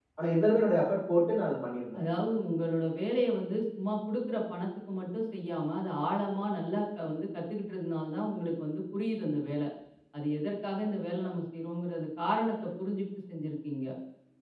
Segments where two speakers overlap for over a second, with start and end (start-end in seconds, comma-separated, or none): none